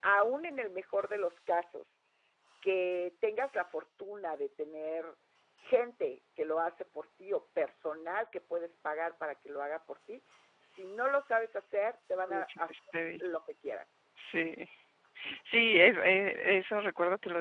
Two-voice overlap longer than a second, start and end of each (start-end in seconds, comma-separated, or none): none